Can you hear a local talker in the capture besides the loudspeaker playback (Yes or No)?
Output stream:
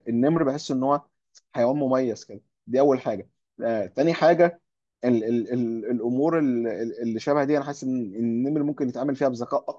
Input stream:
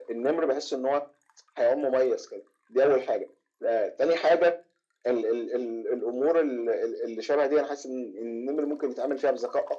No